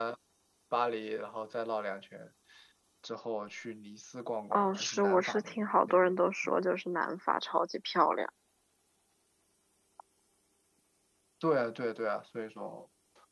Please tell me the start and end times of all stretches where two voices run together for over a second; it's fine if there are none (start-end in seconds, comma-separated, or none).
4.5-6.7